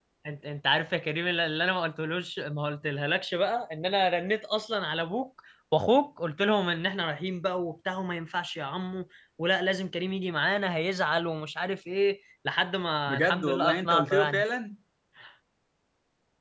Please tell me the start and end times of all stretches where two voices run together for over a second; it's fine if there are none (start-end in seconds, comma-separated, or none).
13.1-14.4